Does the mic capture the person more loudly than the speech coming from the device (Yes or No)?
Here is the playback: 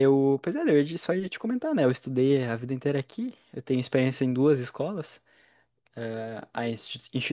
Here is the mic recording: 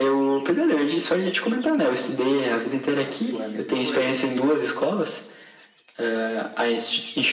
No